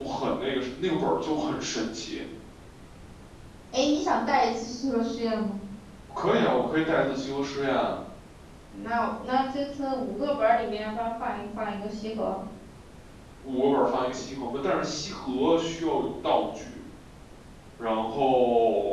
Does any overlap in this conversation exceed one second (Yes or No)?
No